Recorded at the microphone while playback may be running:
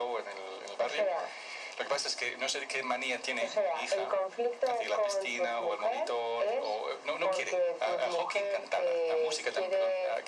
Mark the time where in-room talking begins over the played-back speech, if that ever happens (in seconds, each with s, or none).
none